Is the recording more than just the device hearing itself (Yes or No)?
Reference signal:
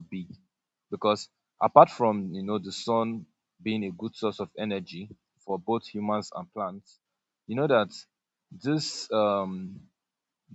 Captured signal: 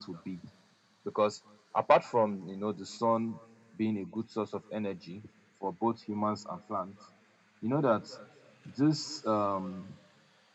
No